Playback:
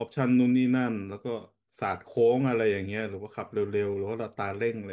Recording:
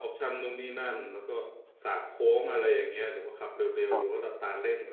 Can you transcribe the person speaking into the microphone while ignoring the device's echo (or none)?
ครับ